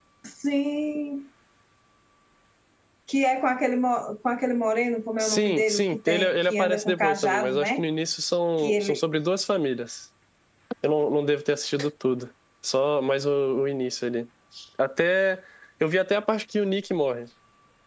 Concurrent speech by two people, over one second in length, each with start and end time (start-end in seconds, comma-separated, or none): 5.2-7.8